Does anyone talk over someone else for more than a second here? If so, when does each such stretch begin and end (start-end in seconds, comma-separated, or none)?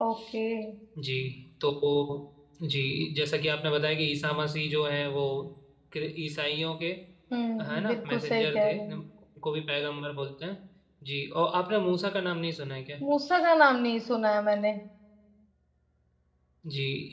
7.7-9.0